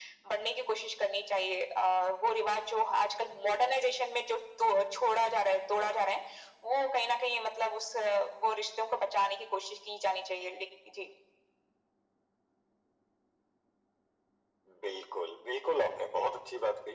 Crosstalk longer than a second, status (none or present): none